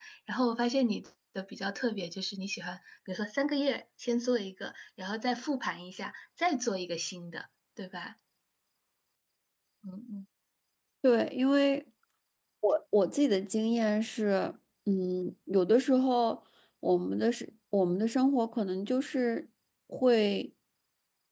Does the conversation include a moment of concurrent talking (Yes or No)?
No